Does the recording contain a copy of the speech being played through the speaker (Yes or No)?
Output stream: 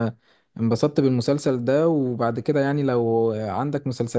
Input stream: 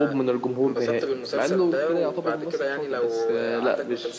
Yes